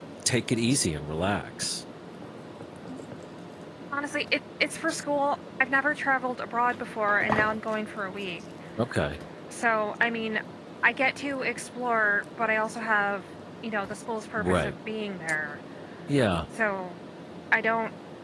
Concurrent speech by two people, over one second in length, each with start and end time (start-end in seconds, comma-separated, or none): none